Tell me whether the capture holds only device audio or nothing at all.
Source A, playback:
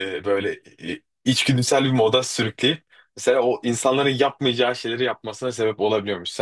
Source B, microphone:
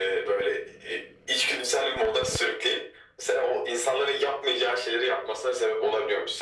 Yes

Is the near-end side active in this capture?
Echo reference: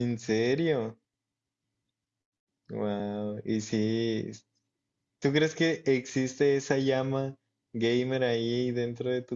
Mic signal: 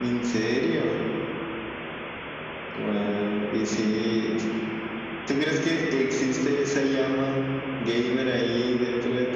No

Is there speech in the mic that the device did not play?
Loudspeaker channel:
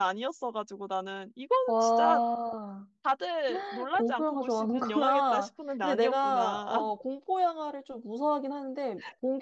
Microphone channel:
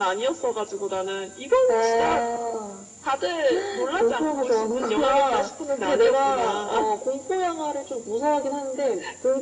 No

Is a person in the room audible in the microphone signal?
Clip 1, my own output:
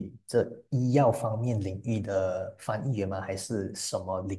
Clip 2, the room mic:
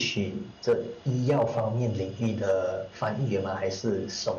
No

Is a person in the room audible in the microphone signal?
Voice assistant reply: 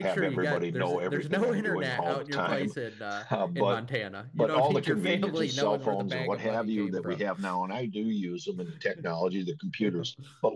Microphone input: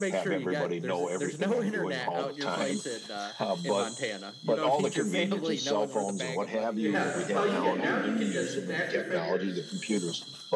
Yes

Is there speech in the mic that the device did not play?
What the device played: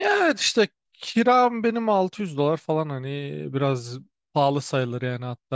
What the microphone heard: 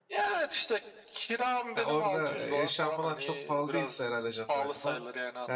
Yes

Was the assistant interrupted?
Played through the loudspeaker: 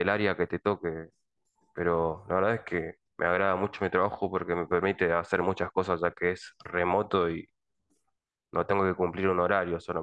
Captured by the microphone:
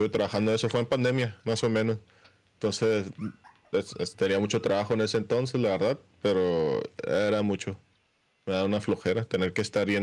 Yes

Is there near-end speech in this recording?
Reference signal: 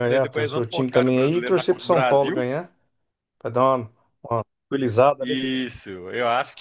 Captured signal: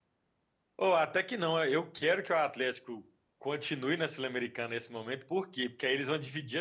Yes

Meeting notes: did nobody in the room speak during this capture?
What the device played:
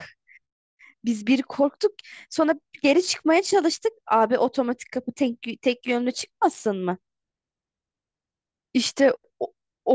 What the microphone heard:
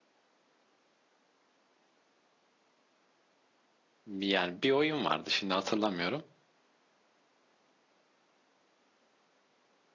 No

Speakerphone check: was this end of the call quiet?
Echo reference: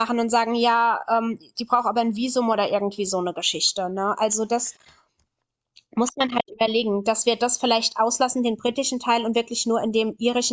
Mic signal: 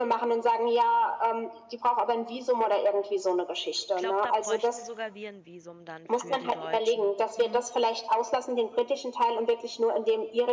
No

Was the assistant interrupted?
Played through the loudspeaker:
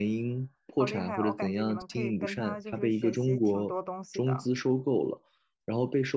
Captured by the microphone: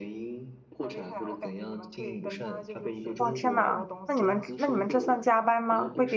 Yes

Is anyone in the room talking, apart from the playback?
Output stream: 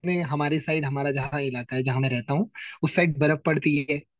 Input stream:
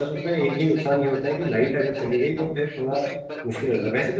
Yes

